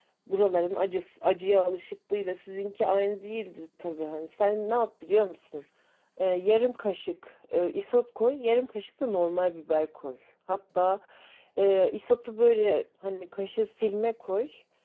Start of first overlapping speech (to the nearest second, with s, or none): none